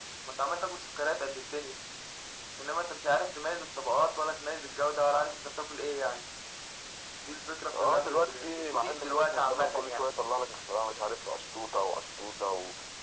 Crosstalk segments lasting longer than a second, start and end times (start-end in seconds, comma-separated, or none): 7.7-10.1